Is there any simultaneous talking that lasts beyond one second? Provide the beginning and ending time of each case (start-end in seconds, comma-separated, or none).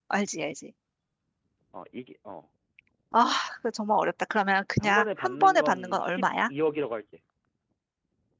4.8-6.5